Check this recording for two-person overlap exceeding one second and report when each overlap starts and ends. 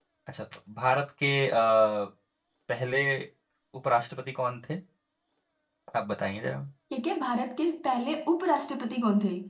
none

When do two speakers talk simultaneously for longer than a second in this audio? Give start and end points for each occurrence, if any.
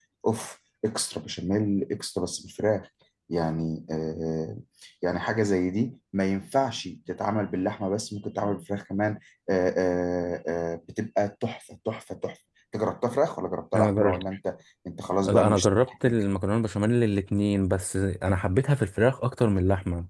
none

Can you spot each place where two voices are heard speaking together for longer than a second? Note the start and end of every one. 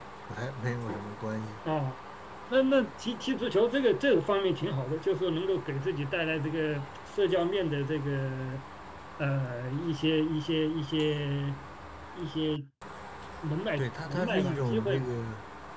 13.8-15.1

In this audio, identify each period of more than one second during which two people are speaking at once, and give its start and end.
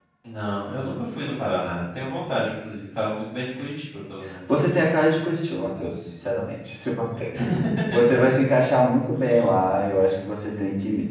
none

